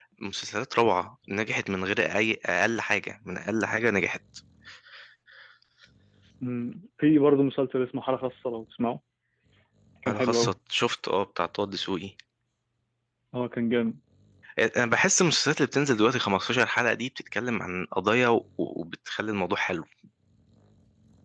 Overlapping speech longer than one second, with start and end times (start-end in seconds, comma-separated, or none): none